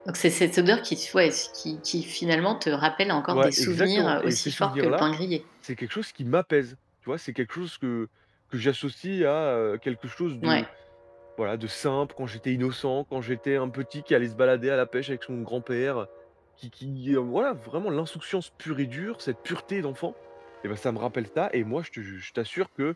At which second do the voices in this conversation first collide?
3.3 s

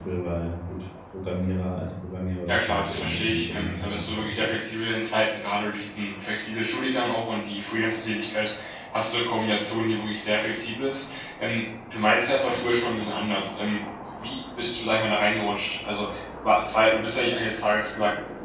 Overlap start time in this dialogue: 2.5 s

